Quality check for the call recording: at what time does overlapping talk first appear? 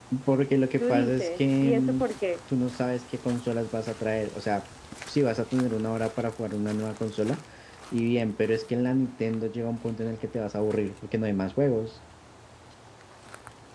0.8 s

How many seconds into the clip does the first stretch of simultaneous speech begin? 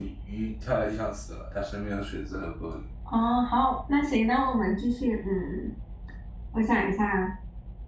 none

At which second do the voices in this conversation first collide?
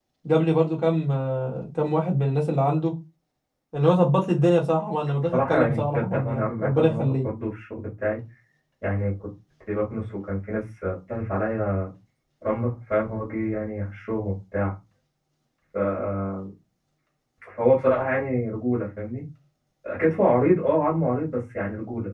5.2 s

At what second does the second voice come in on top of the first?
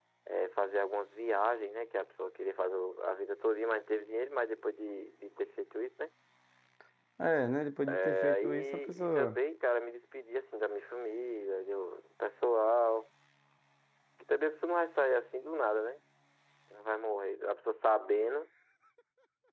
8.0 s

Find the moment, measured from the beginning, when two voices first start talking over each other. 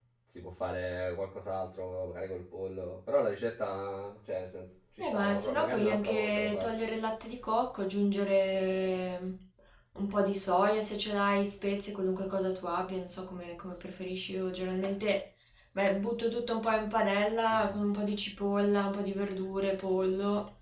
5.0 s

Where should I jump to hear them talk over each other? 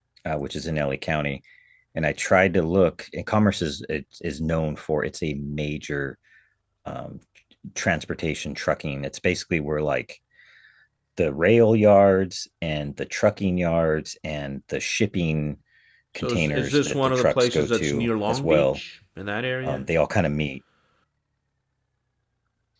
16.2 s

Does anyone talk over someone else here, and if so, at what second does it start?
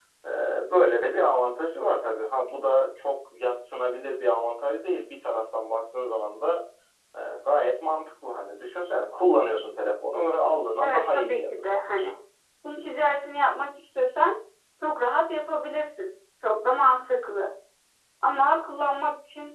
10.8 s

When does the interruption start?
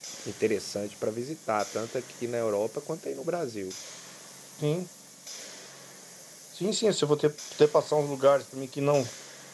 none

